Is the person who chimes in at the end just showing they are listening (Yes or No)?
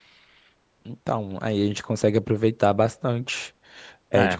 No